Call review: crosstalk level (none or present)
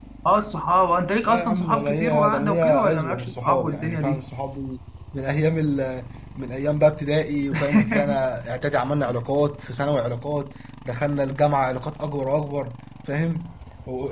present